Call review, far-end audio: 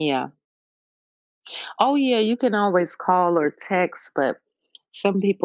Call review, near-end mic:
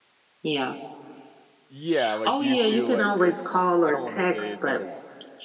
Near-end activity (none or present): present